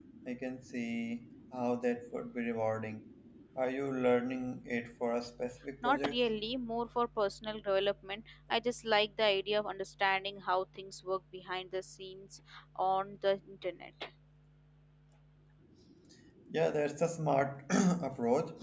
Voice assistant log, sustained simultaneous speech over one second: none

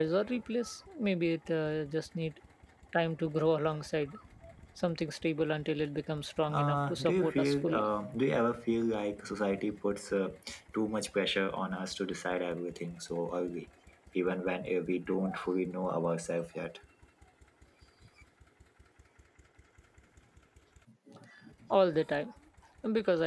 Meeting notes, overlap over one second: present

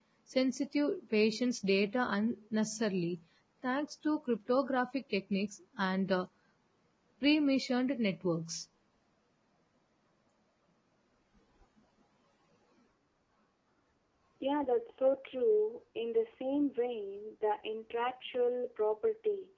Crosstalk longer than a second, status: none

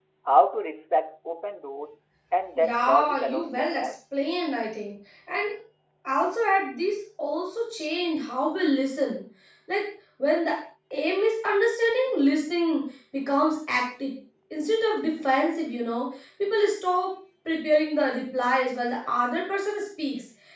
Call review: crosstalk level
present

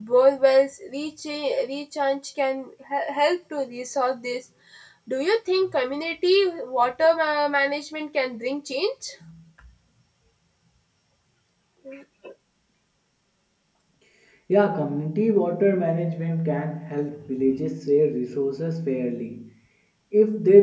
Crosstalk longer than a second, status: none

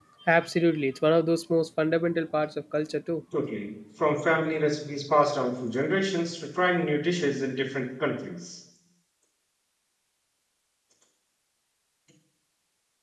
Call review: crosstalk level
none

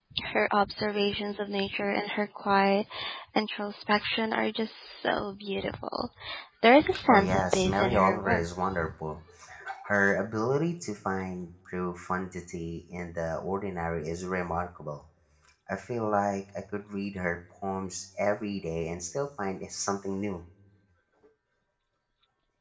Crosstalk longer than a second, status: present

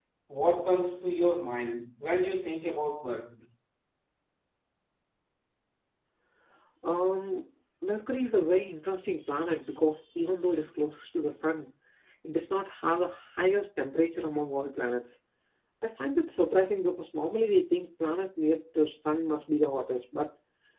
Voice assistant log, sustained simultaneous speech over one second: none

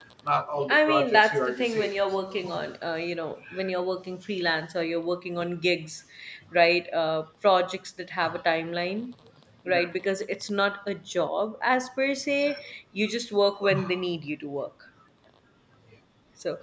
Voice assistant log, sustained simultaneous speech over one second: present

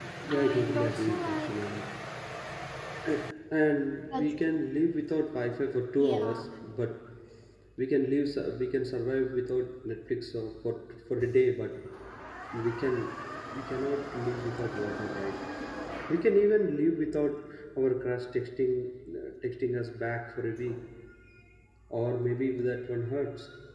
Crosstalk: present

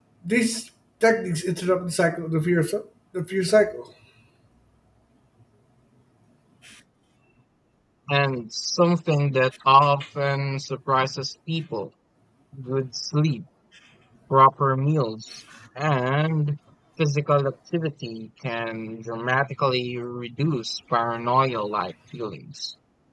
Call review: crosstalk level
none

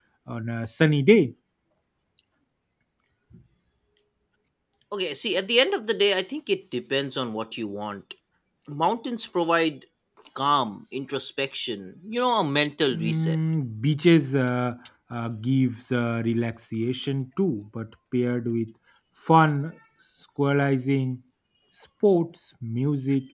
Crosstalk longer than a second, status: none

